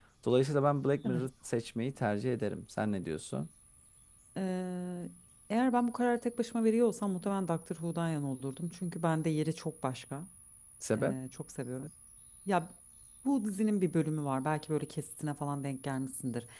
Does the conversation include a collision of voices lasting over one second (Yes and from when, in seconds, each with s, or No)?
No